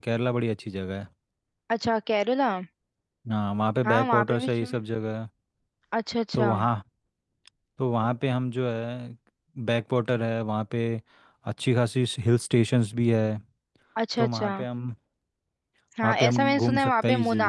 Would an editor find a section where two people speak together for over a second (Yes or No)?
Yes